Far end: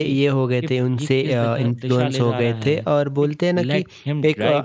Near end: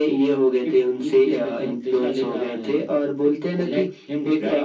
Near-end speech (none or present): none